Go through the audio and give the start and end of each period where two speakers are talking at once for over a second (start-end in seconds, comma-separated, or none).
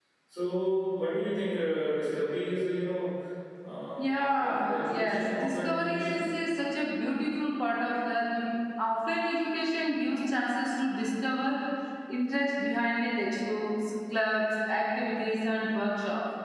4.0-6.2